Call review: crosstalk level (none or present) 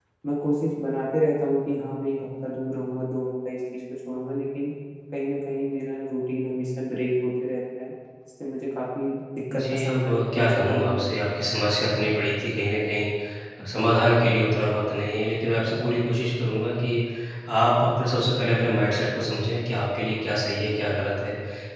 present